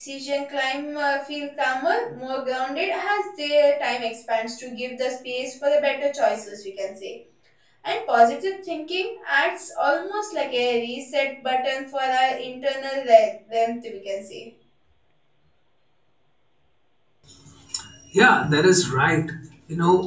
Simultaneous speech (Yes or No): No